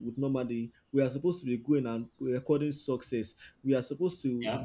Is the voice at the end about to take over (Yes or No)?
No